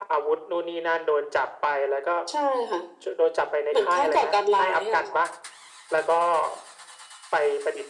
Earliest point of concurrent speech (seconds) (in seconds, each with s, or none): 3.7 s